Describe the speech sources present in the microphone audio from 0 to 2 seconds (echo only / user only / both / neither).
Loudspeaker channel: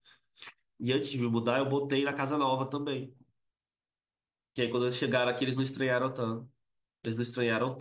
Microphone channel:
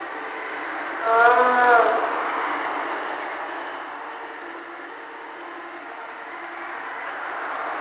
user only